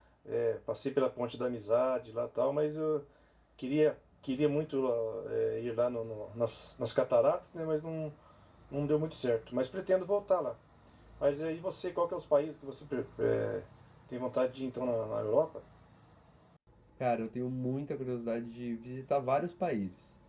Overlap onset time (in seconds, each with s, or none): none